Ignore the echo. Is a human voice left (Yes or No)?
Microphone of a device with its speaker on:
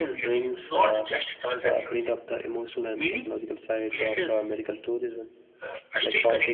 No